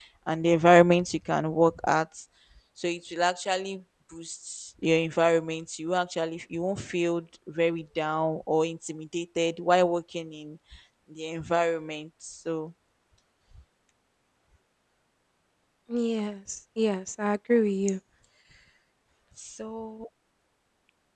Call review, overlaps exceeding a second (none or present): none